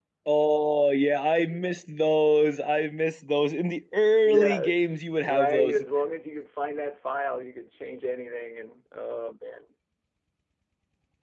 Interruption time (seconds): 4.2 s

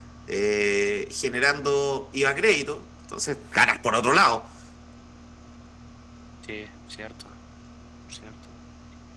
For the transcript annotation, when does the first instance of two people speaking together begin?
none

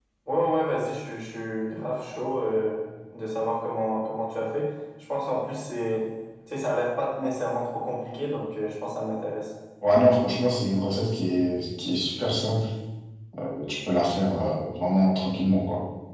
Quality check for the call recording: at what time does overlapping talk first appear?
none

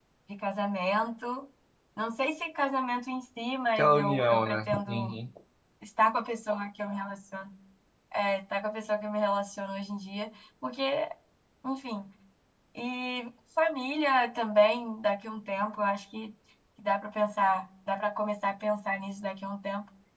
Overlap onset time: 3.8 s

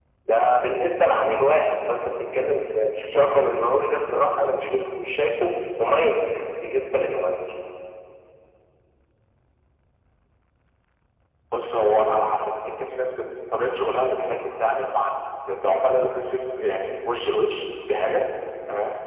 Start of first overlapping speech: none

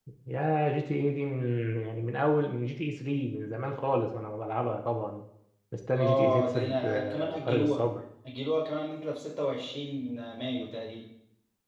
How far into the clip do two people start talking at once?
5.9 s

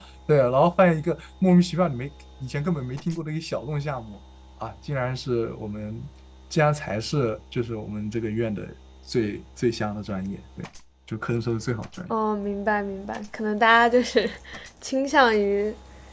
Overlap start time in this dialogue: none

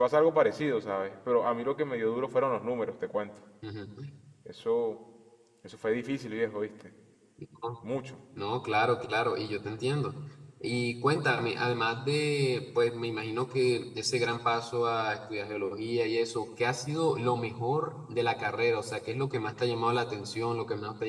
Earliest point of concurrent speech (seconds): none

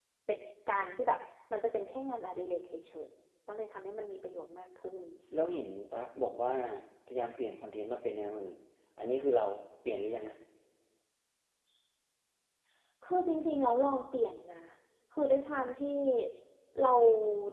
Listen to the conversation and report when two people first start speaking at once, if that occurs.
none

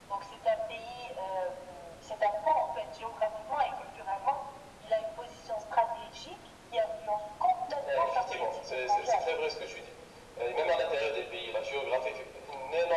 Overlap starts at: 7.8 s

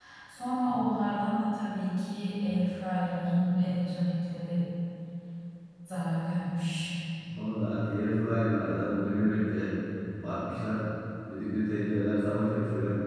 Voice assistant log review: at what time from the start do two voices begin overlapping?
none

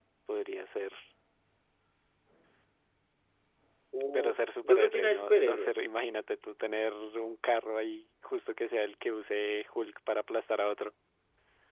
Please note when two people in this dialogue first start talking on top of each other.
4.1 s

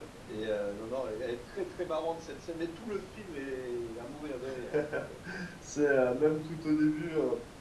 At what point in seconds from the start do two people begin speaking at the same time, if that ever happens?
none

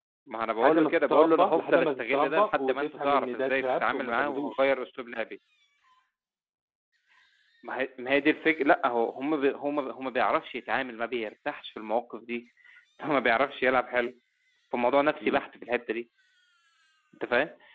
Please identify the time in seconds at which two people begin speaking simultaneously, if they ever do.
0.6 s

